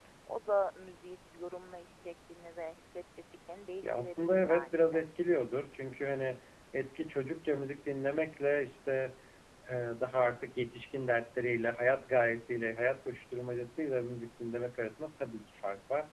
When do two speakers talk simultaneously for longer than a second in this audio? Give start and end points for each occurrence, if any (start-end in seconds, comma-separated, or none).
3.8-5.1